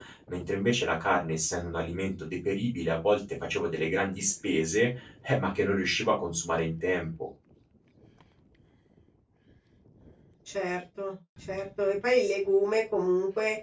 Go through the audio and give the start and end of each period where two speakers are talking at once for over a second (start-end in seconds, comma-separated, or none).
none